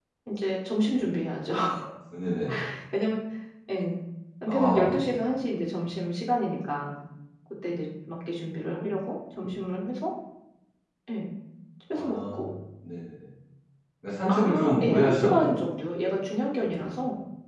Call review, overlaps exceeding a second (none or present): present